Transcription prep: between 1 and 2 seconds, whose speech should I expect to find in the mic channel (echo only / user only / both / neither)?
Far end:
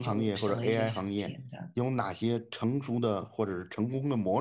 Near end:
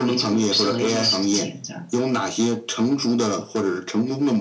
both